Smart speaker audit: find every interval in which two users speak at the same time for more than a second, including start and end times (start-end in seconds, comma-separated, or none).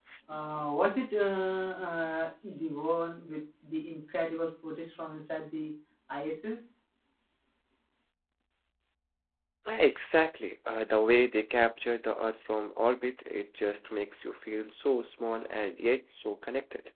none